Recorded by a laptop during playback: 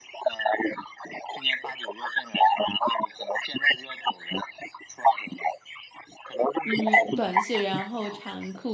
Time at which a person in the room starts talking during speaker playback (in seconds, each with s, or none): 6.7 s